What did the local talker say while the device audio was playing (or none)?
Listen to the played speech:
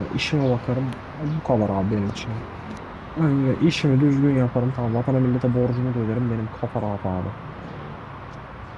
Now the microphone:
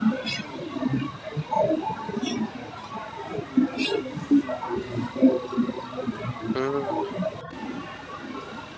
Hmm,